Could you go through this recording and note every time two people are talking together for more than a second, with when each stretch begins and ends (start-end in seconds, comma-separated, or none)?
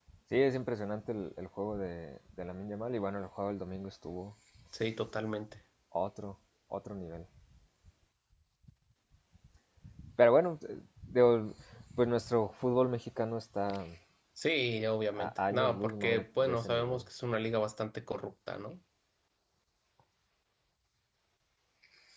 15.1-17.0